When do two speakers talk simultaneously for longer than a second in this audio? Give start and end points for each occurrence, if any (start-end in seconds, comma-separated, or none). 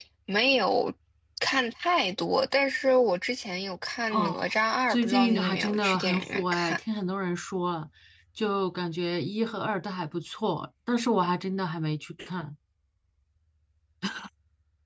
4.9-6.8